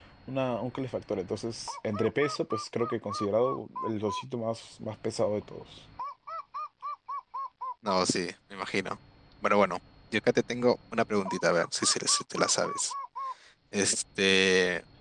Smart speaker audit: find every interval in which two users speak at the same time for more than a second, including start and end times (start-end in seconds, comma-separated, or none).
none